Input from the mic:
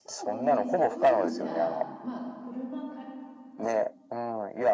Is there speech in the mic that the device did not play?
Yes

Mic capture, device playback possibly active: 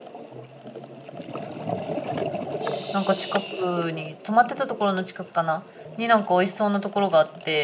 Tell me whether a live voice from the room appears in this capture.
Yes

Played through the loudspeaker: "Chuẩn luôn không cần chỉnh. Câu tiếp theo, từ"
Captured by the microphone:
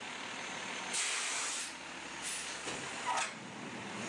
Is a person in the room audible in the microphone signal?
No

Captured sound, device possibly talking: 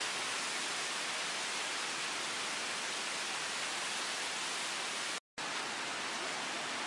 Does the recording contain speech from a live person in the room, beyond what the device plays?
No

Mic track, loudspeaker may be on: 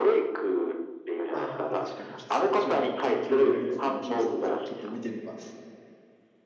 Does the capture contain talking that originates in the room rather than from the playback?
Yes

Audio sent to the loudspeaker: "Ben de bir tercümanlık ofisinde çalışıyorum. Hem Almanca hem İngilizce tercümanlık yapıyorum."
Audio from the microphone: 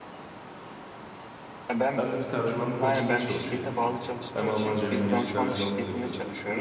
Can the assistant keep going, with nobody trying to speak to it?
No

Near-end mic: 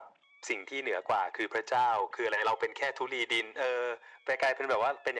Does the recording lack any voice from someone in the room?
Yes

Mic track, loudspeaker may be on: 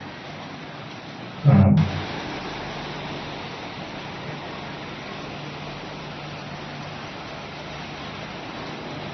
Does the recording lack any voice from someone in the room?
No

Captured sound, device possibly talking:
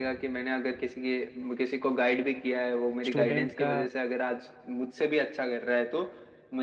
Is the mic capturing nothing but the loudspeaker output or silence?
No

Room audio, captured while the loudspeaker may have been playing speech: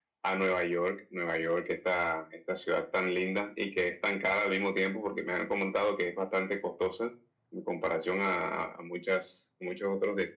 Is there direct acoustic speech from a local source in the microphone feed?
No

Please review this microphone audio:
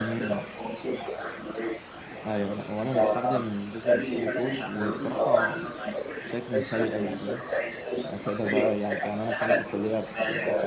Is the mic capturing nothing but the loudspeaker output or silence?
No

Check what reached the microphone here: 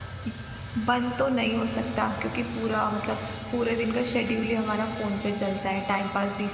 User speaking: Yes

